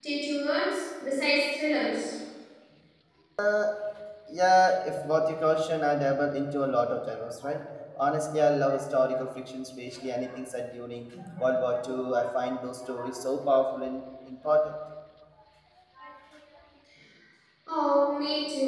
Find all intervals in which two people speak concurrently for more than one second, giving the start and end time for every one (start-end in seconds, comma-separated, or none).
none